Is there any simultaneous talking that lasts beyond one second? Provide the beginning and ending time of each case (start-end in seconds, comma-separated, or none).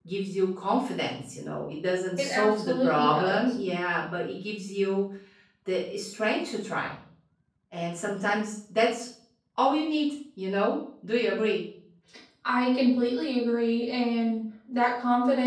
2.2-3.5